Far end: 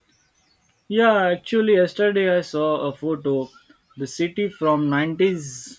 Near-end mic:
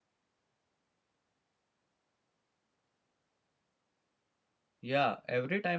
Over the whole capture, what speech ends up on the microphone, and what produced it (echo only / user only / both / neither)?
user only